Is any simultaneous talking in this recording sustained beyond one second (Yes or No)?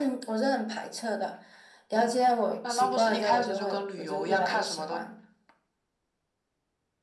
Yes